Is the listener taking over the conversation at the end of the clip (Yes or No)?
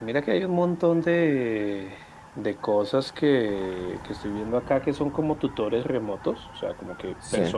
No